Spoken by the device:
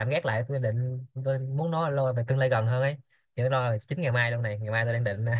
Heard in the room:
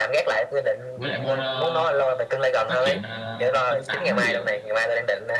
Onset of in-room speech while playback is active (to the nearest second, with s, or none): 1 s